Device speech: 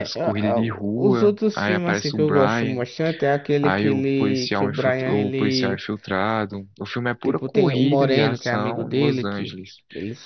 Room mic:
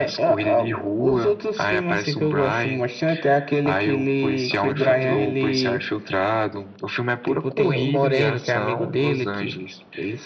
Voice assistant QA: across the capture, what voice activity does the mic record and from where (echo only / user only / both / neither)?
both